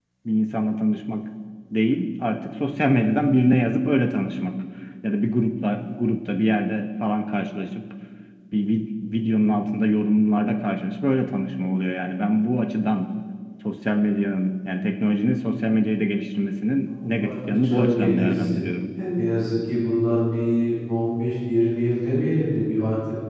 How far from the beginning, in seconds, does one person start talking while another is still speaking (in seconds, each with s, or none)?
16.9 s